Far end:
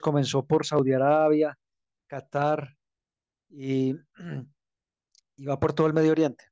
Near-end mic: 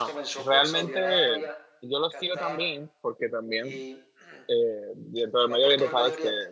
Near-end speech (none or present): present